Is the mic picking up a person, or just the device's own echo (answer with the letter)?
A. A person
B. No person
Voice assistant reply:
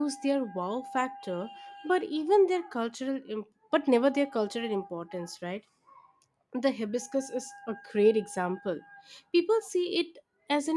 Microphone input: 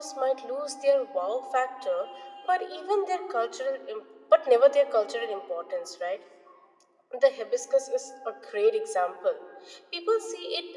B